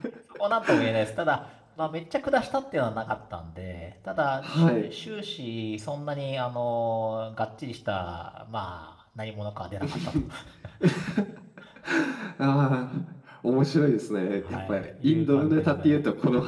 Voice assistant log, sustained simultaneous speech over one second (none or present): present